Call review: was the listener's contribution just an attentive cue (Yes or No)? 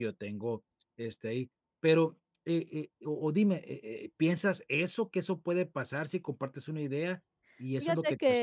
Yes